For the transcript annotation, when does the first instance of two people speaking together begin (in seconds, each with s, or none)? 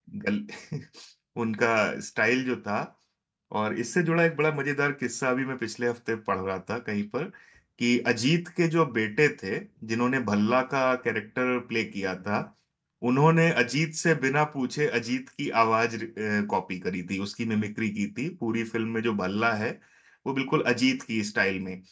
none